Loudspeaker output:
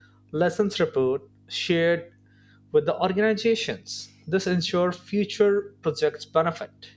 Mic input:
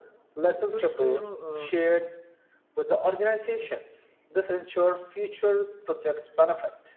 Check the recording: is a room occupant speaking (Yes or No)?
Yes